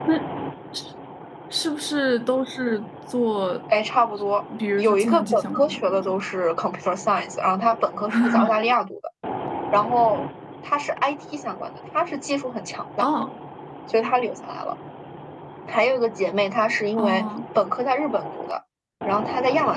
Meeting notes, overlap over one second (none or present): present